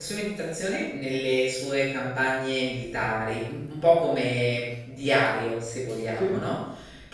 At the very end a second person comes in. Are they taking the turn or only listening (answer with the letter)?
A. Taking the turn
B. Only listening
B